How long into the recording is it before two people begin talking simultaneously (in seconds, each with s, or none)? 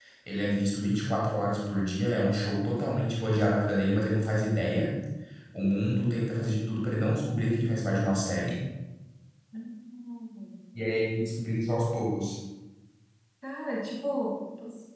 none